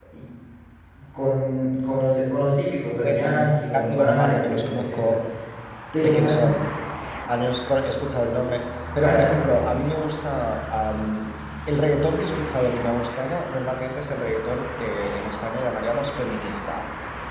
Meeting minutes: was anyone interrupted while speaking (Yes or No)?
Yes